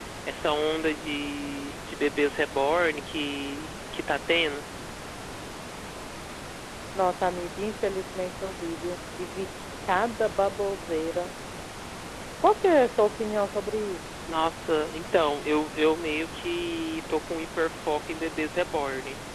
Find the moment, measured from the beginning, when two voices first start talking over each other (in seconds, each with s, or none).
none